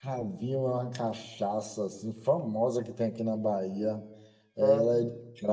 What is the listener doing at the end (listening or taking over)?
listening